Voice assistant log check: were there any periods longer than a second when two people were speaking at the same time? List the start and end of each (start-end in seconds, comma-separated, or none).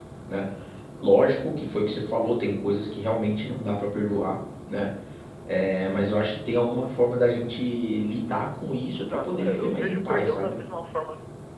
9.0-10.6